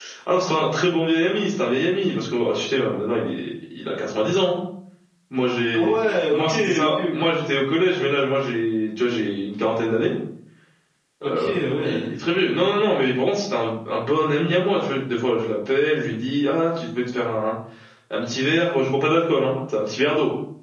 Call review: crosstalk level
present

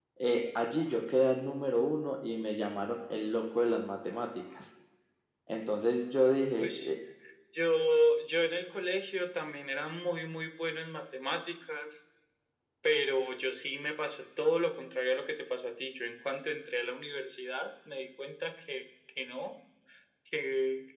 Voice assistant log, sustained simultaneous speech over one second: none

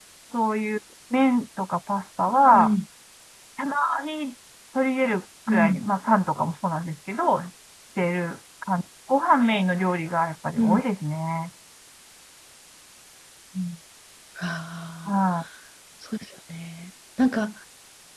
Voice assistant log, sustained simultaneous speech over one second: none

